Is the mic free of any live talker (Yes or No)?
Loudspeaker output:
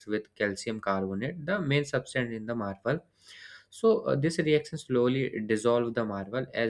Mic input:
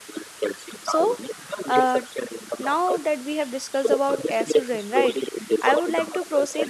No